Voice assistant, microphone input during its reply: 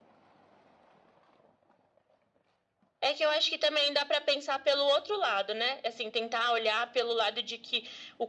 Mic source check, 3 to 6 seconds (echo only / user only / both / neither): echo only